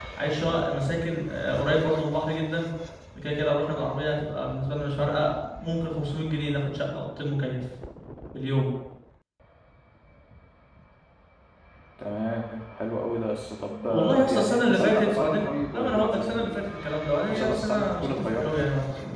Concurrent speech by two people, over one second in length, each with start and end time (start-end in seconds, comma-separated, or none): 13.8-16.7, 17.3-18.5